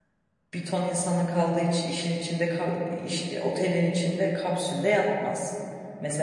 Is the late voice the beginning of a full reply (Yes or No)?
No